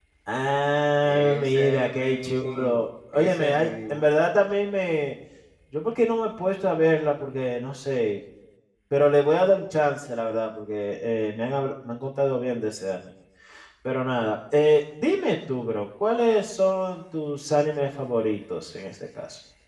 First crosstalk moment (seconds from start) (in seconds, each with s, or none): 1.0 s